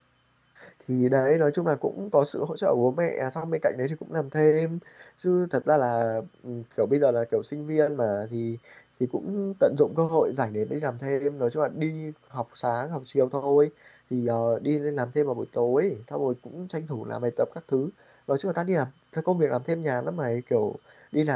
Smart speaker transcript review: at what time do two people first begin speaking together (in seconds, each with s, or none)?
none